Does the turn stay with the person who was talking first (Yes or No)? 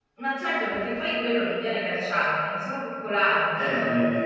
No